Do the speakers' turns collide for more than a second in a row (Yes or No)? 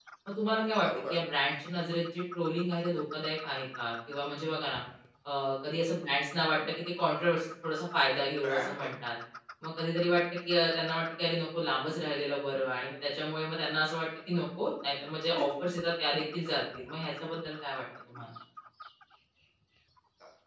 No